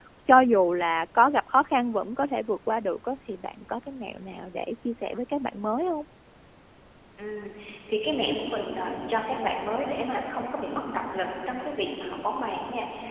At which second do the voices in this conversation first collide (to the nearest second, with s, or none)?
none